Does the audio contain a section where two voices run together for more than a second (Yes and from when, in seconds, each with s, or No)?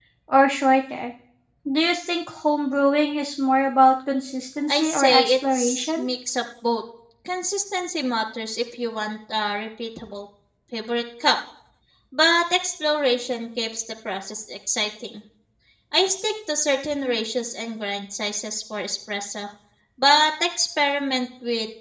Yes, from 4.7 s